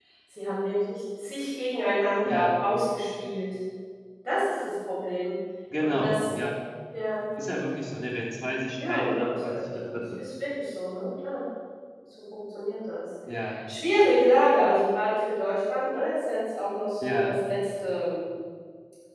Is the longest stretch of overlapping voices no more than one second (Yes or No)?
No